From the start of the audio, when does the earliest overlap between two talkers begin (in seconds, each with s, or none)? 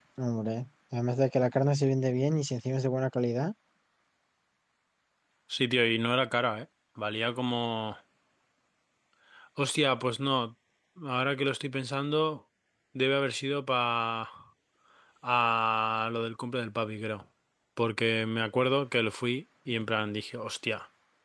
none